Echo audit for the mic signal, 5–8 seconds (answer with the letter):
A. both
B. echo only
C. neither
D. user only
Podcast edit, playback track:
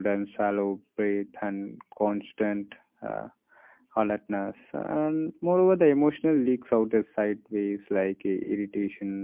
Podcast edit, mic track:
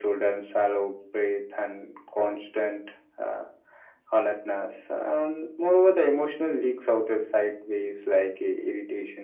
B